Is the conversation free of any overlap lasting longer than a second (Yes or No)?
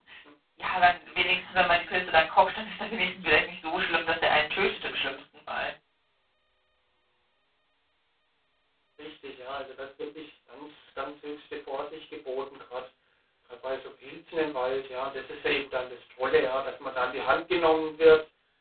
Yes